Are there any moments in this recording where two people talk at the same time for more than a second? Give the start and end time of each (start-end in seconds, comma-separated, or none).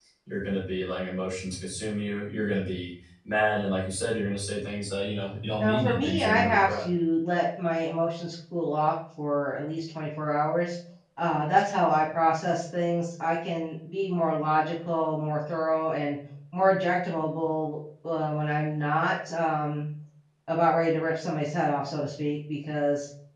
5.6-6.8